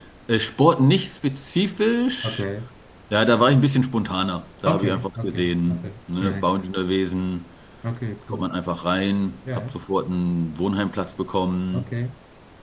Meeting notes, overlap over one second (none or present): present